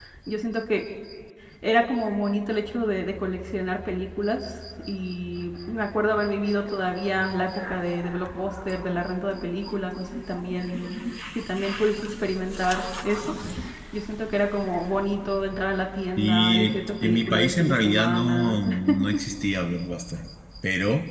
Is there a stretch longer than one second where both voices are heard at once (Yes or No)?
Yes